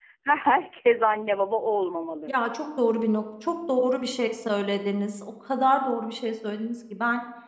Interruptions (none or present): none